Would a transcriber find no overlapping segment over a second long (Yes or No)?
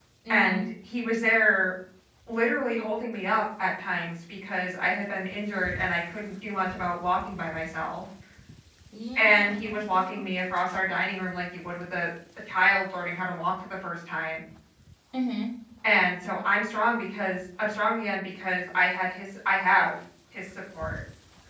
No